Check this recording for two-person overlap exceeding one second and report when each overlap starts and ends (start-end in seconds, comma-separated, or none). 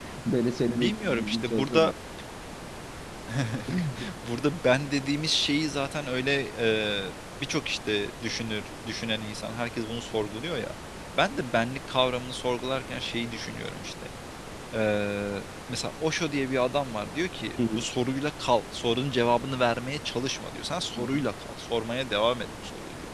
0.7-1.9